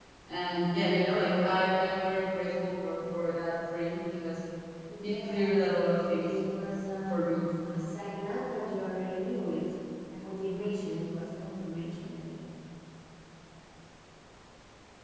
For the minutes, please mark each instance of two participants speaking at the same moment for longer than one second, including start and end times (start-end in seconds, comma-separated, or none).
5.0-6.3